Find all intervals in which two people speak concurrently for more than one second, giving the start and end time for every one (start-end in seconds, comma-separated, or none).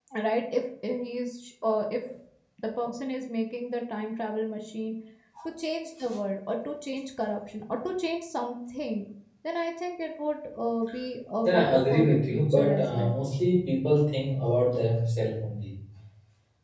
11.4-13.1